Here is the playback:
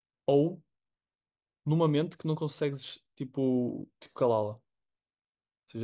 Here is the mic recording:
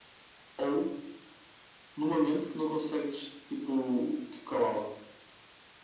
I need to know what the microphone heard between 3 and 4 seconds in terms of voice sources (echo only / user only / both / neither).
echo only